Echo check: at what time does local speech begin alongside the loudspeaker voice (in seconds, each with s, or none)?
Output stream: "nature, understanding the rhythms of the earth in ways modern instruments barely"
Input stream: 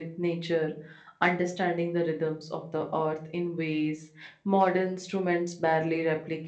none